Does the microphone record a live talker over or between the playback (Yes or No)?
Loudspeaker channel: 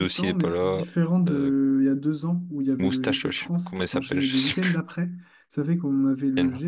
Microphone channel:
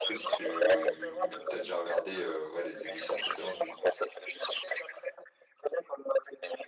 Yes